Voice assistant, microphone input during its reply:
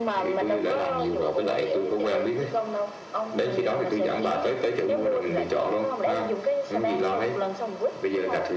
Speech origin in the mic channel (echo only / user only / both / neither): echo only